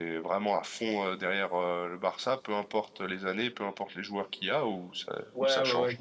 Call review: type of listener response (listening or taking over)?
taking over